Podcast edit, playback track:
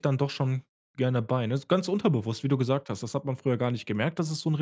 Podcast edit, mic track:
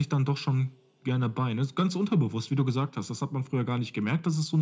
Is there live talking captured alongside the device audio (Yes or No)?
No